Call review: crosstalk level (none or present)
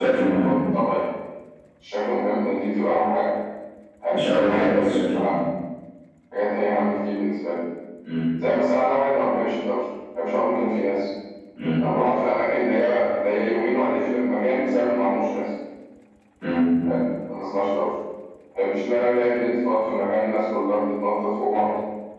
present